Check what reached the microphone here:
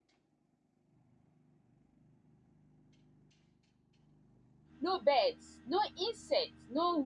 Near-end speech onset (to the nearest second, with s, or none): 5 s